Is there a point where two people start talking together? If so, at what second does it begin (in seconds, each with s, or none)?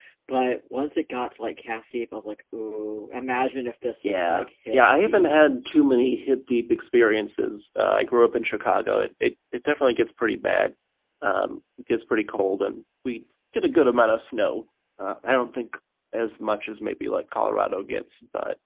4.0 s